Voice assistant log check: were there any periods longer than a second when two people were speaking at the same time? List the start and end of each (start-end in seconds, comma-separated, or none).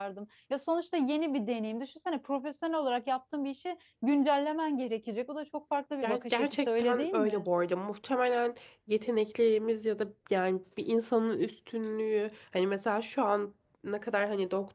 6.0-7.5